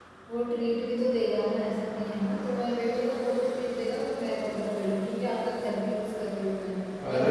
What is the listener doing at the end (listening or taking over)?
taking over